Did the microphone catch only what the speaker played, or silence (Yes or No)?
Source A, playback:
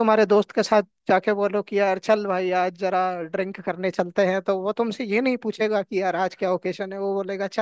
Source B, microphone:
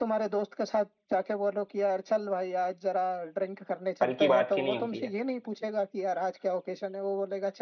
No